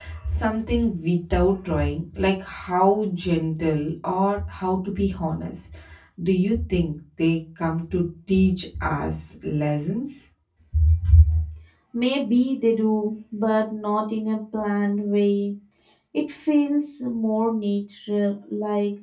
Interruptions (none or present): none